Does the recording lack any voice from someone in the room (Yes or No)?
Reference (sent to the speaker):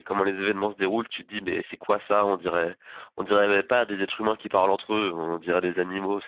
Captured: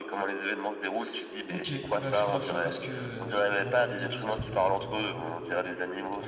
No